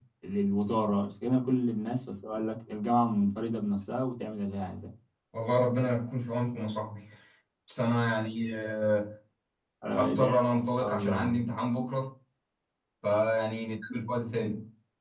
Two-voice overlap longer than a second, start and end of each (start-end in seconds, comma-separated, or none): 9.9-11.4